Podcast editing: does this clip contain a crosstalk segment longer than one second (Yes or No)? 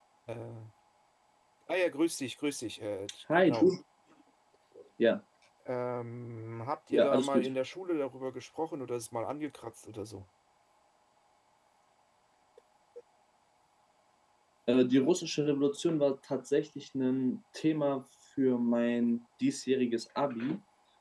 No